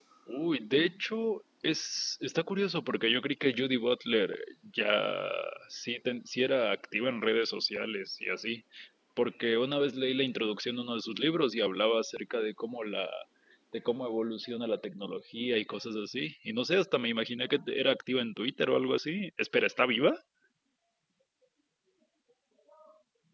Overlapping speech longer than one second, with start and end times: none

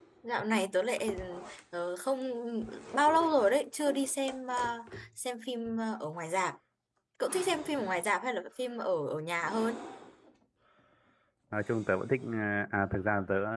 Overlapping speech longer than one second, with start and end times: none

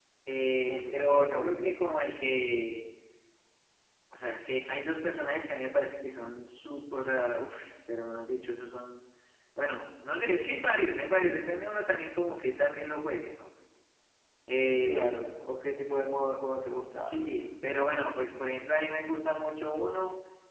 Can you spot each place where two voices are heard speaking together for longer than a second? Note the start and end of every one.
0.5-1.7

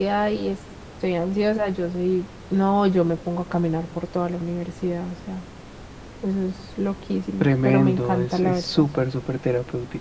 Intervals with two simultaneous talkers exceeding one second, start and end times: 7.4-8.8

